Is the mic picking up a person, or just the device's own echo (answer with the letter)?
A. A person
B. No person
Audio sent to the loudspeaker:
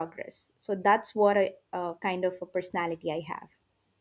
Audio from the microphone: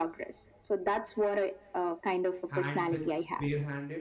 A